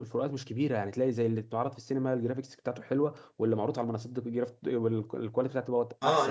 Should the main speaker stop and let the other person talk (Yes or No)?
Yes